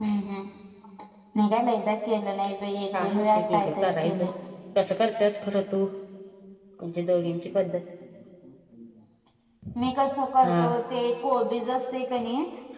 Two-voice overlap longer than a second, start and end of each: 2.9-4.2

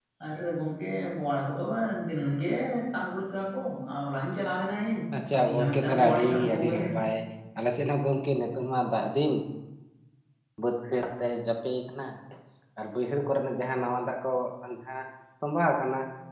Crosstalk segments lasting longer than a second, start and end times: 5.5-6.9

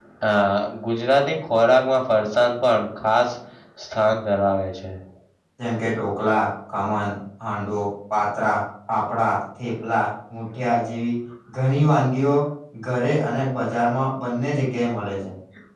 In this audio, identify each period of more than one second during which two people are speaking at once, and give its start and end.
none

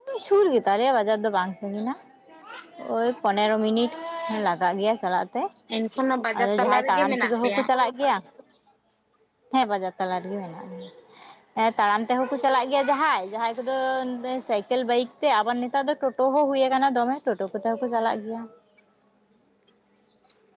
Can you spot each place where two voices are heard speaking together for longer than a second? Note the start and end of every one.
6.4-7.6

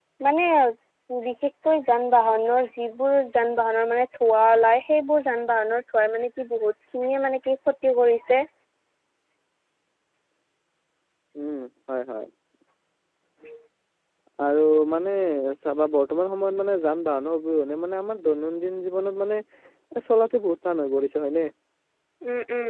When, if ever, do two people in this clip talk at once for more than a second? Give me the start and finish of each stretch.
none

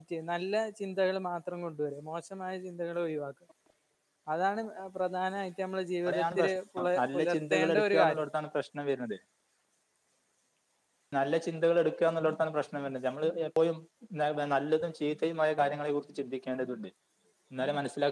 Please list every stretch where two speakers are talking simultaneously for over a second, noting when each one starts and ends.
6.1-8.2

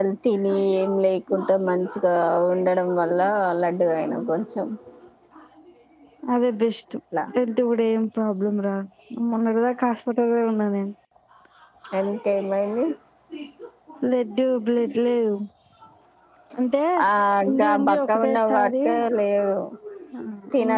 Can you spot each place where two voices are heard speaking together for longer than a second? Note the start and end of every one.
17.5-18.7

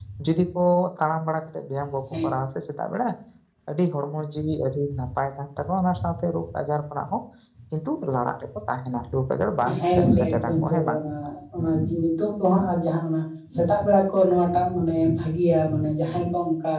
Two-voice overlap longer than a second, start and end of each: 9.8-11.0

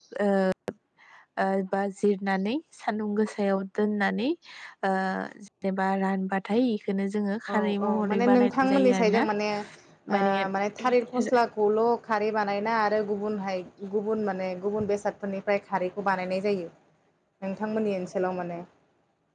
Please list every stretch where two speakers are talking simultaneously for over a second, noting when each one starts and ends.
7.5-9.2

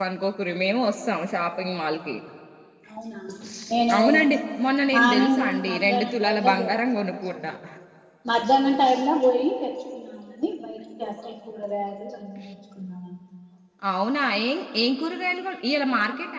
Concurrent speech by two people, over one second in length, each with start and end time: 4.9-6.7

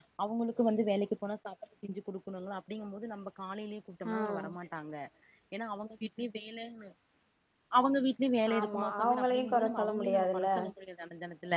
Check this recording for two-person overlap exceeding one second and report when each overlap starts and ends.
8.6-10.5

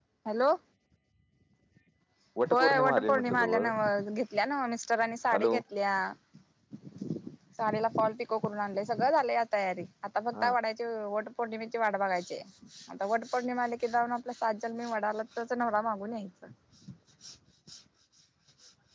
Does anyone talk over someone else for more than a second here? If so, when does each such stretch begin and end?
2.5-3.7

